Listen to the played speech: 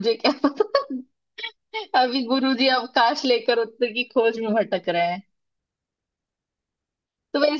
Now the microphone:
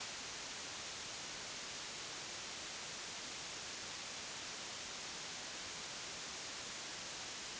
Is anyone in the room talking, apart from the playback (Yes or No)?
No